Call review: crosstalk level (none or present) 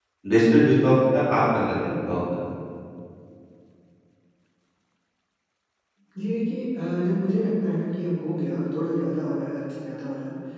none